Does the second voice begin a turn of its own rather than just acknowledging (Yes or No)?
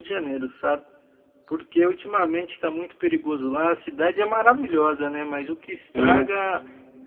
No